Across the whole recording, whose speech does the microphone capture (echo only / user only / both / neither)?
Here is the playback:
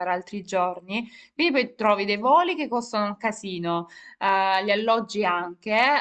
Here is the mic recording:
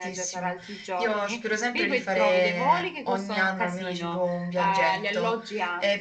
both